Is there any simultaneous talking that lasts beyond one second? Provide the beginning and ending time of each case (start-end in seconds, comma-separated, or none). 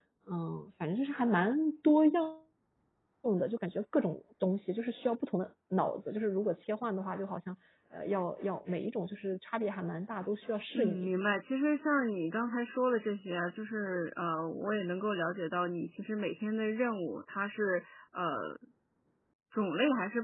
none